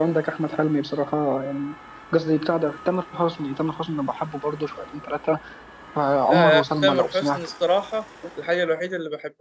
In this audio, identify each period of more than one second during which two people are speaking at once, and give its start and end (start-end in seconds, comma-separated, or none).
6.3-7.5